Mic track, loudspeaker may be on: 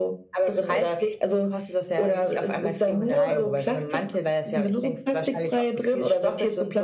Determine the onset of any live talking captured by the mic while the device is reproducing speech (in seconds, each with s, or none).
3.0 s